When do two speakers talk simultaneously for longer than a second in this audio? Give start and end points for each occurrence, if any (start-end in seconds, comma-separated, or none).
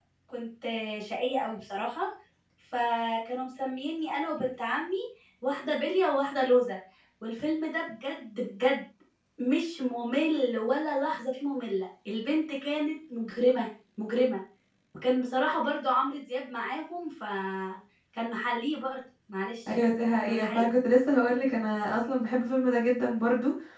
none